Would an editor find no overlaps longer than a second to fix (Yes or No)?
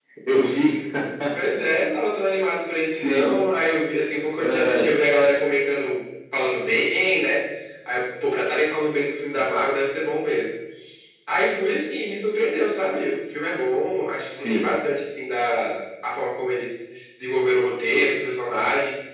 Yes